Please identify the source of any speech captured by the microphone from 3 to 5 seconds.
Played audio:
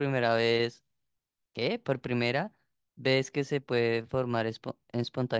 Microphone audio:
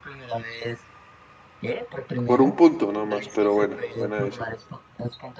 both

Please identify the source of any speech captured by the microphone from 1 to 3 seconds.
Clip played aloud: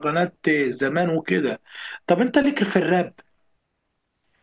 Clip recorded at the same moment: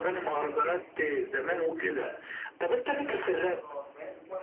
both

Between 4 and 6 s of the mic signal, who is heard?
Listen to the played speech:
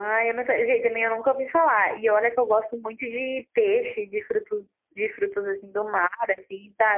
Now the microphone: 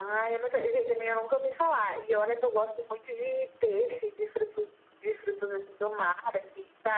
echo only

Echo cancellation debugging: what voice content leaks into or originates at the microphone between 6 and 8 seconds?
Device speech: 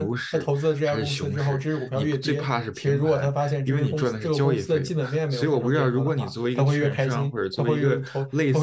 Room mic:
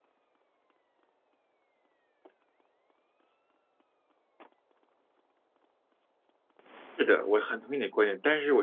user only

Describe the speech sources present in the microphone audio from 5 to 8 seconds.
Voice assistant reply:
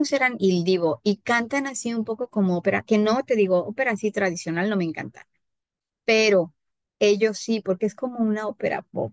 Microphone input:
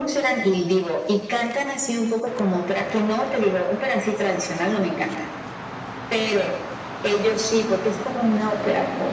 echo only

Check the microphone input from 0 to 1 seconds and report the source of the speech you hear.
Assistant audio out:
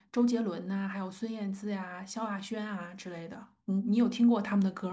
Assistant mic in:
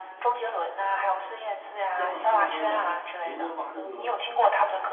echo only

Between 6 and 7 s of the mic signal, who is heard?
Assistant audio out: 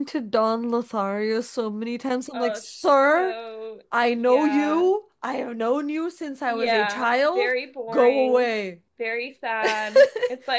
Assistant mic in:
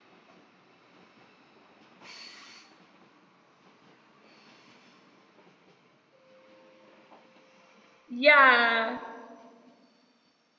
neither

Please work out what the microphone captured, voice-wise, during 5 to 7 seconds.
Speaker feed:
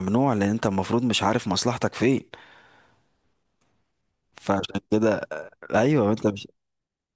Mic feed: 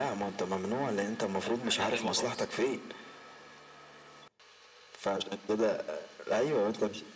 echo only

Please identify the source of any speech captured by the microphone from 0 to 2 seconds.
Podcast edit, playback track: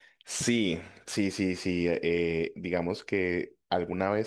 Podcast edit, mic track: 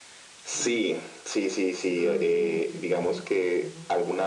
both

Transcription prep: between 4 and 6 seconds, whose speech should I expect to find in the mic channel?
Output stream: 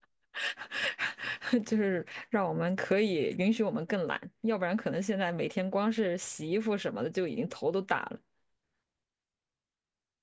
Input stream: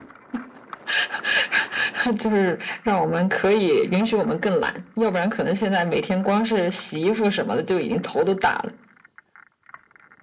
echo only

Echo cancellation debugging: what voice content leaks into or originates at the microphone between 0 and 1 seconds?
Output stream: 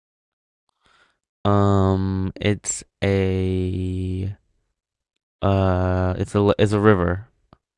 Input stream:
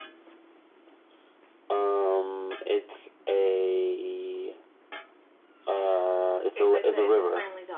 neither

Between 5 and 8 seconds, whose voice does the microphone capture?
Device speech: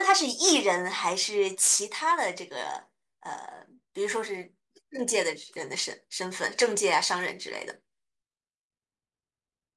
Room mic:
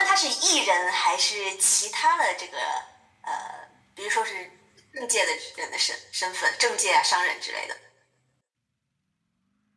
echo only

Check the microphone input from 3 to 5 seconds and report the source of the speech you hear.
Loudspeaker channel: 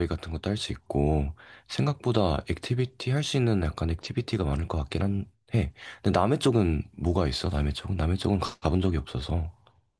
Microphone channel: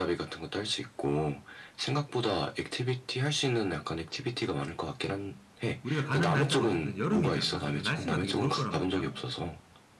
echo only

